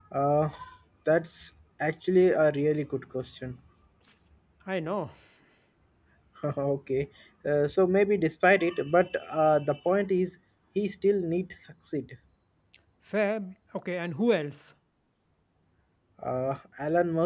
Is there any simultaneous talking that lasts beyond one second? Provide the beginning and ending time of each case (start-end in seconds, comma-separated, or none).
none